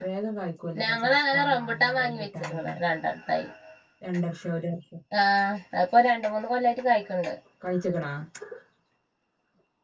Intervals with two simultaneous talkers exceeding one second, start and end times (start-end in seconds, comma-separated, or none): 0.8-2.6